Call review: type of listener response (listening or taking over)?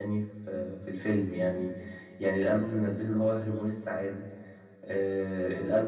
listening